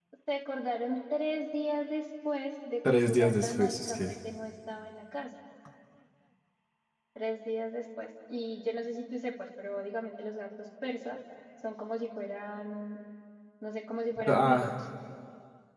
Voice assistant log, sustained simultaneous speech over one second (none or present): present